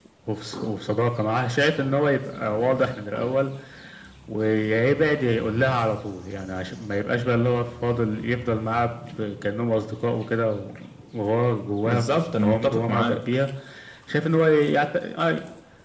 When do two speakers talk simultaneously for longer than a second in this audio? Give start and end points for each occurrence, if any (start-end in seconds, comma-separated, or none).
11.8-13.2